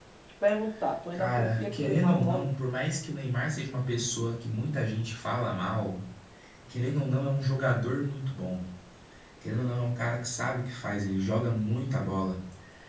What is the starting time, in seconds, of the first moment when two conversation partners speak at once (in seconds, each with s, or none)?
1.1 s